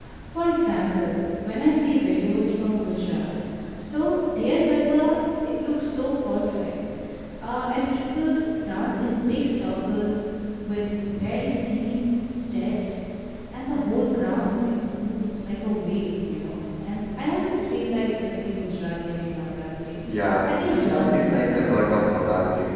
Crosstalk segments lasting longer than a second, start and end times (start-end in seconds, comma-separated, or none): 20.5-21.8